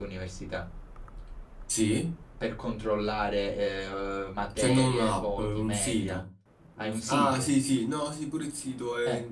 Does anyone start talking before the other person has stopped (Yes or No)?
Yes